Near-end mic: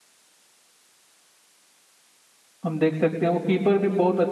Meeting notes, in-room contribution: present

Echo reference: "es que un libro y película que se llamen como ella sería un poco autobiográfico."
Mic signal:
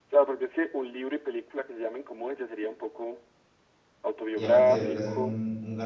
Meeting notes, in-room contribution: present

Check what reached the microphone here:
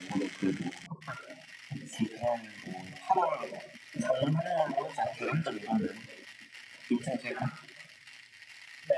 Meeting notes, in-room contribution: none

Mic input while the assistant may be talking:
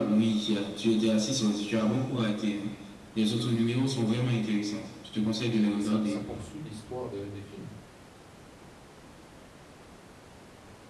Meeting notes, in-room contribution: present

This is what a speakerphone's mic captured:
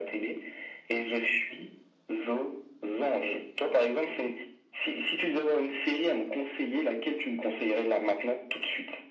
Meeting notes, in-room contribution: none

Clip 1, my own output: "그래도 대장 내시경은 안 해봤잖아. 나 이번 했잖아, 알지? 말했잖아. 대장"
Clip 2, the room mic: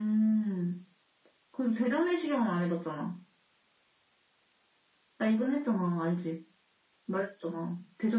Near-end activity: none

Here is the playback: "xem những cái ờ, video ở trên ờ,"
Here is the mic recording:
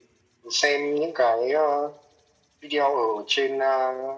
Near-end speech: none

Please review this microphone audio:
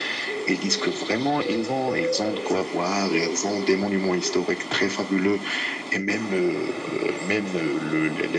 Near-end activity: none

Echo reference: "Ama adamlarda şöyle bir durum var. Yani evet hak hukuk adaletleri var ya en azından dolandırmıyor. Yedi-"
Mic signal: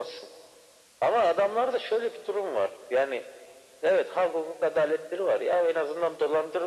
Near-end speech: none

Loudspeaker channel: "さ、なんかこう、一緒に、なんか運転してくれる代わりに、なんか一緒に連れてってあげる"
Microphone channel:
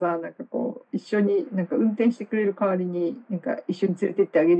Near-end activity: none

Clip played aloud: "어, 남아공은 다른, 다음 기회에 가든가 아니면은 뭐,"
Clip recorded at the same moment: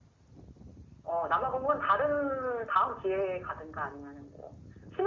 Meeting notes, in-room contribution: none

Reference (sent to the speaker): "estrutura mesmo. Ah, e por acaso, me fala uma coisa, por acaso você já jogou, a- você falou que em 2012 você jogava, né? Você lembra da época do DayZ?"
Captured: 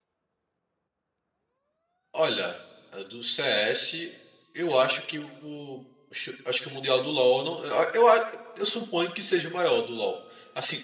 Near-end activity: present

